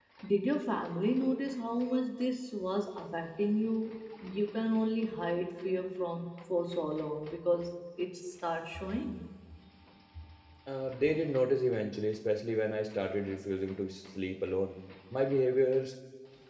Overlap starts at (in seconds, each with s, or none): none